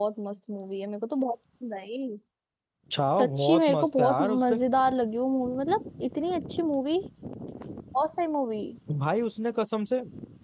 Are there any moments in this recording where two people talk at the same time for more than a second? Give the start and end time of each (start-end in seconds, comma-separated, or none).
3.2-4.6